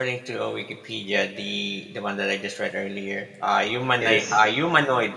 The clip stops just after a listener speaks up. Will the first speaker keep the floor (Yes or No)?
Yes